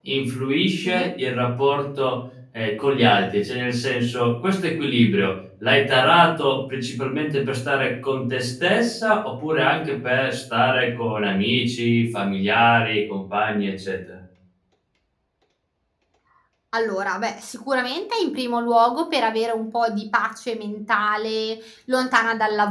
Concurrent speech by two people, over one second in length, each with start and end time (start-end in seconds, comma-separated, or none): none